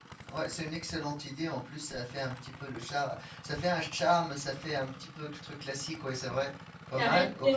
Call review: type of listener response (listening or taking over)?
taking over